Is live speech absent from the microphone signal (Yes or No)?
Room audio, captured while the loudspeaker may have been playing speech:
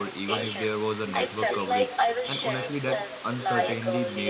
No